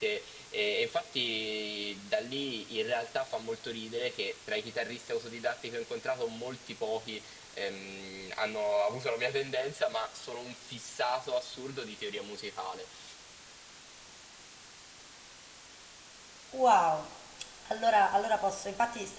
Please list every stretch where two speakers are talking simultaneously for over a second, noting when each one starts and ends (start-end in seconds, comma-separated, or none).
none